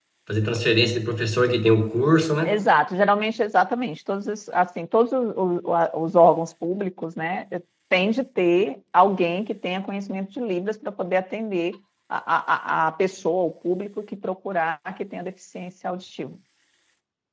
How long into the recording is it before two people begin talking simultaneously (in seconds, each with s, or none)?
none